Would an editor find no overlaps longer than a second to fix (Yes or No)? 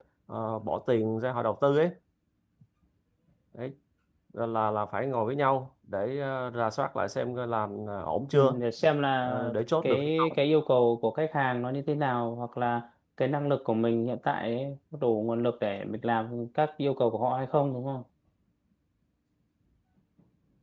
Yes